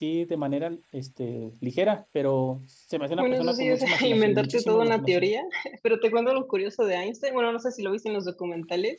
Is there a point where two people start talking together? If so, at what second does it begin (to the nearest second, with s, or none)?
3 s